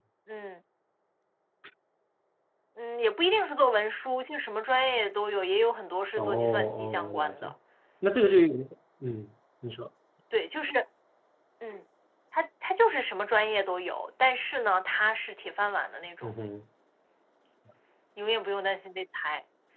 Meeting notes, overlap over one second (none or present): present